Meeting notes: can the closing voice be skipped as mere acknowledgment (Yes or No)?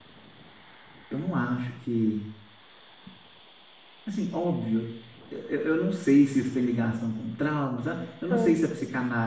Yes